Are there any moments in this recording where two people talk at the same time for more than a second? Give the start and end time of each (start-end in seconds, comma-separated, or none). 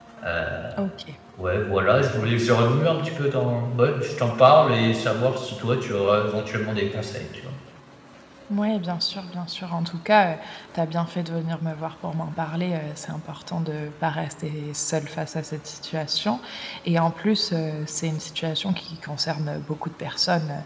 none